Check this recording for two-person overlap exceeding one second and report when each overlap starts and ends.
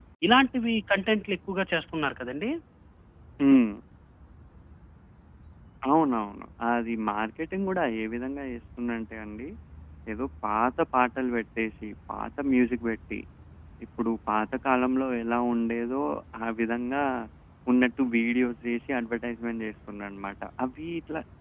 none

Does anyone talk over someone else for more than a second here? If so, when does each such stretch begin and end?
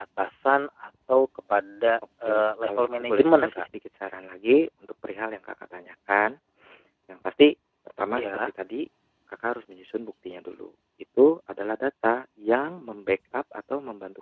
2.2-3.6

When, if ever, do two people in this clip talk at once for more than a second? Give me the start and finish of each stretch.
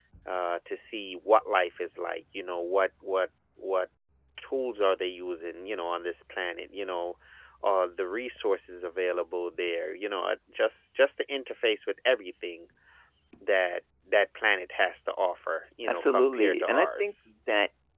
15.9-17.3

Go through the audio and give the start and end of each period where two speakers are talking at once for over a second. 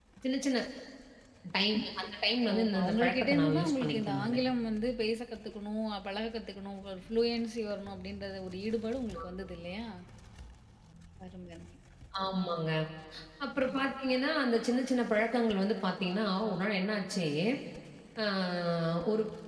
2.5-4.4

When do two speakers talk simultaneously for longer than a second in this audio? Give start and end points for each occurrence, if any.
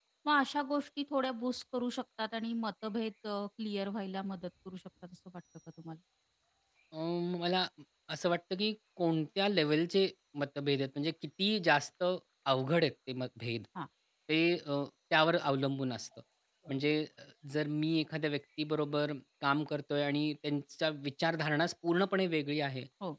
none

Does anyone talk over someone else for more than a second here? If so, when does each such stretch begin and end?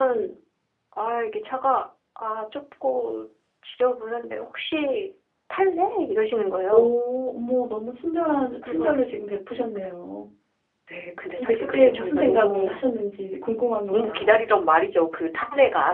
11.4-12.8

